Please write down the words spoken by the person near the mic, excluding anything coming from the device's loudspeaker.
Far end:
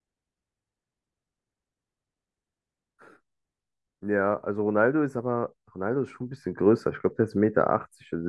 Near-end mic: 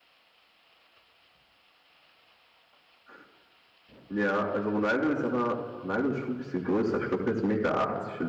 none

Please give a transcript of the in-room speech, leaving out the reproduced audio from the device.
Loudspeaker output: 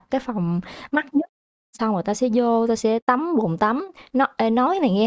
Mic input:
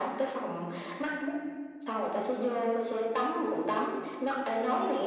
none

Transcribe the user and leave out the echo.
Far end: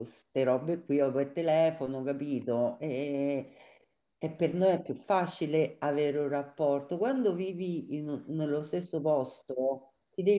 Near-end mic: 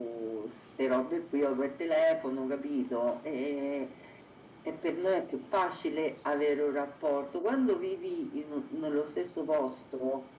none

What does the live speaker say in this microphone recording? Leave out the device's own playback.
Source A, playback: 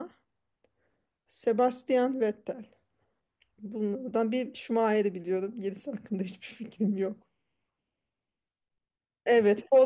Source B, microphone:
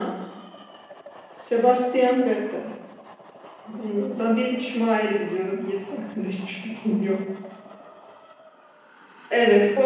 none

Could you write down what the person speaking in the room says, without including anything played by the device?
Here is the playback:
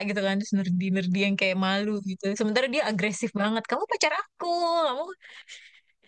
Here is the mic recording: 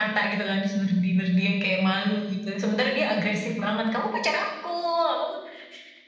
none

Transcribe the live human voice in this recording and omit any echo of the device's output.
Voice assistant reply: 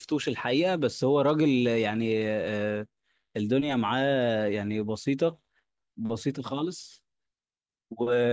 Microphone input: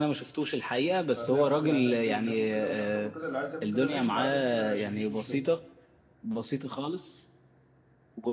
فهتلاقي برضه يعني ناس تاكل كده والناس تاكل كده اللي عايز ياكل كده ماشي اللي عايز ياكل كده ماشي مفيش مشكله

